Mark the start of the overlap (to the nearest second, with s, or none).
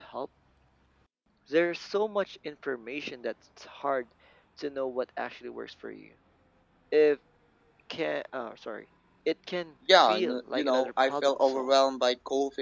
10 s